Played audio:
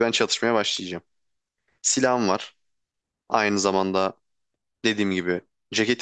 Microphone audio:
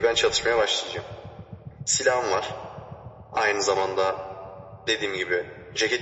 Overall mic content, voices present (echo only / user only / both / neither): echo only